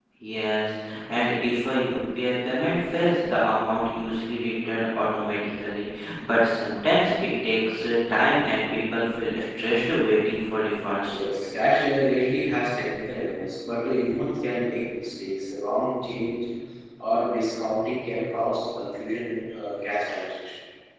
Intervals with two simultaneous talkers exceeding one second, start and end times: none

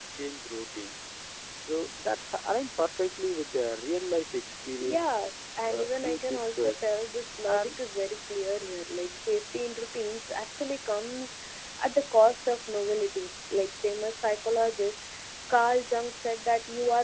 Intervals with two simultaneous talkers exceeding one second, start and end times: 5.7-6.9

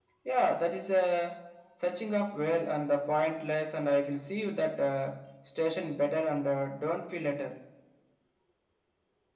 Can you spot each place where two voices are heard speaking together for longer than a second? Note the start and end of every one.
none

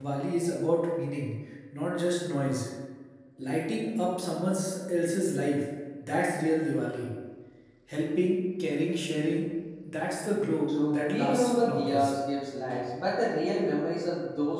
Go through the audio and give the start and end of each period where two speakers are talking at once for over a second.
10.7-12.1

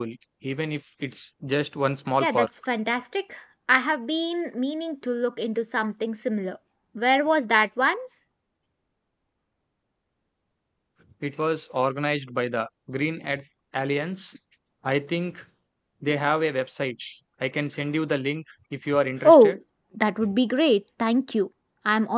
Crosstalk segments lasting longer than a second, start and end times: none

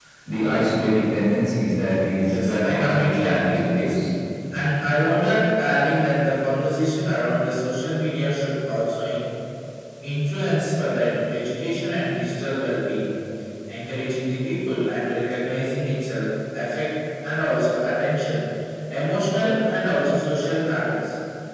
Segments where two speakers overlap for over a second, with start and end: 2.3-4.0

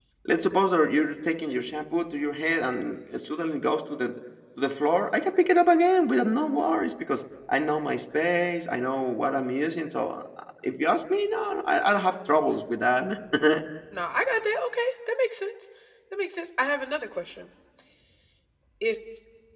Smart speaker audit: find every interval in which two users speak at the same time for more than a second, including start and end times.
none

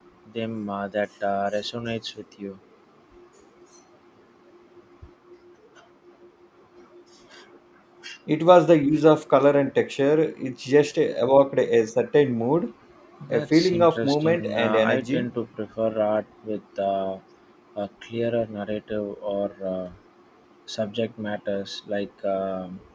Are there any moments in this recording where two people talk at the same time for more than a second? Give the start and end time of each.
13.3-15.3

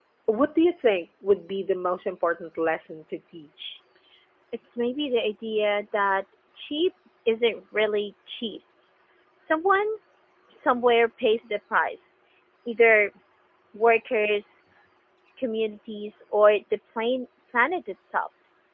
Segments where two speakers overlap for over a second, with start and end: none

